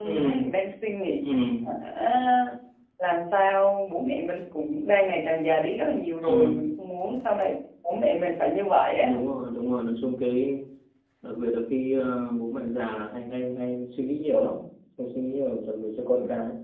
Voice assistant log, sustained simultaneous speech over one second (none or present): none